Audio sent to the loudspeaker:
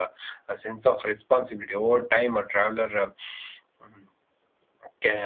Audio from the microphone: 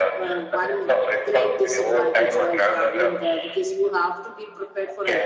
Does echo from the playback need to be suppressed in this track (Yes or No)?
Yes